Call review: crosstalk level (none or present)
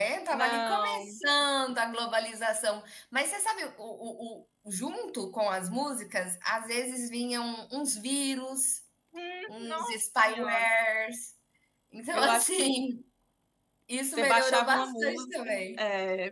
present